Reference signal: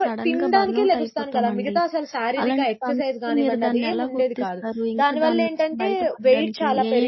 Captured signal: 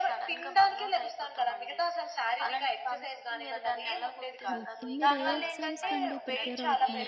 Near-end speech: present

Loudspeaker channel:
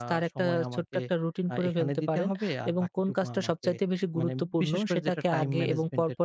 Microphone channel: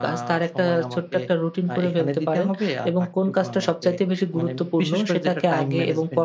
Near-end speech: none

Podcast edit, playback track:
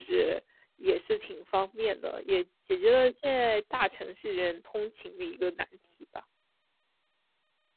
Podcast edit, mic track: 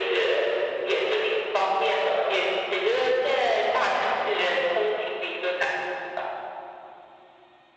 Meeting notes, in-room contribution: none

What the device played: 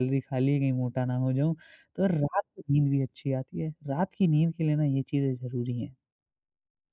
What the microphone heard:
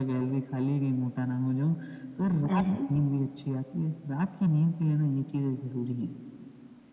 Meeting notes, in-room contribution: present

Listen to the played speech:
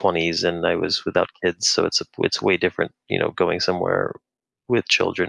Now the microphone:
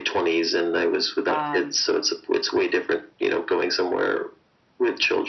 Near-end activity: present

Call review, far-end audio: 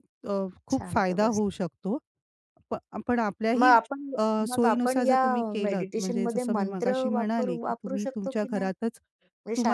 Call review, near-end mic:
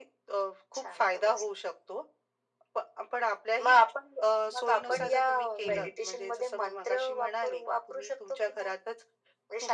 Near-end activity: present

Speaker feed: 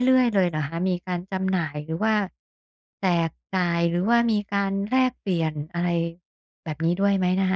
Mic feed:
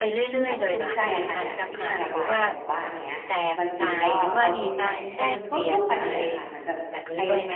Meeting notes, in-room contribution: present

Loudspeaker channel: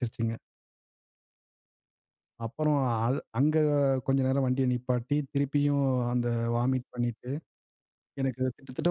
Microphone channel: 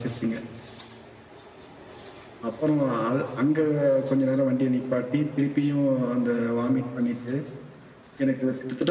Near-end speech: none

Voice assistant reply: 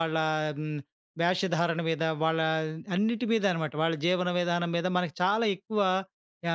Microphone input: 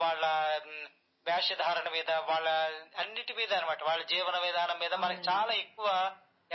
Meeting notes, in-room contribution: present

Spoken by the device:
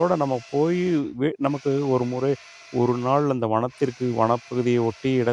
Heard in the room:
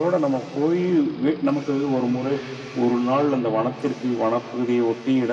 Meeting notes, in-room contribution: none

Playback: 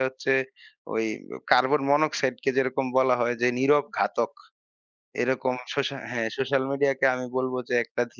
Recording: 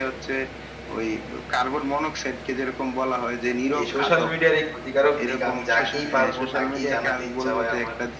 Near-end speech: present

